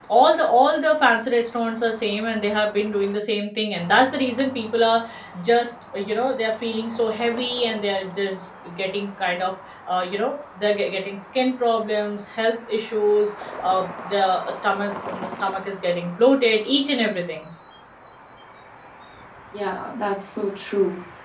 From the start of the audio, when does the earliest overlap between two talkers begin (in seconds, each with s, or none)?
none